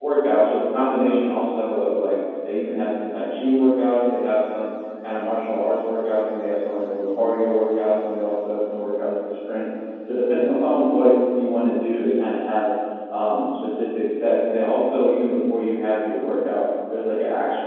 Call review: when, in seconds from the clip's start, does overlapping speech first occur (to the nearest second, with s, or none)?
none